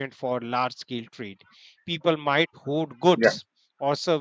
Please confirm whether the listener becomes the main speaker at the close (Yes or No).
No